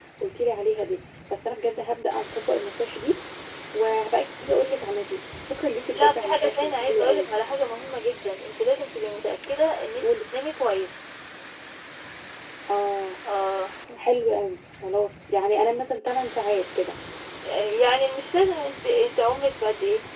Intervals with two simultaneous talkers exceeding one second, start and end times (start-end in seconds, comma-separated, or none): 5.9-7.4